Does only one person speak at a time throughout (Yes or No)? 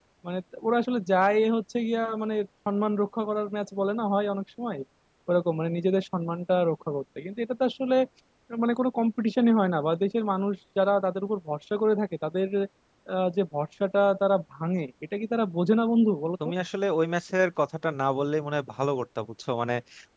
Yes